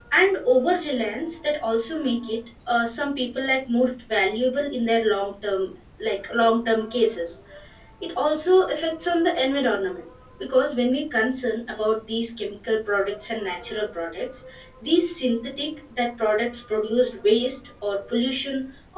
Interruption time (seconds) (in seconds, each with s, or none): none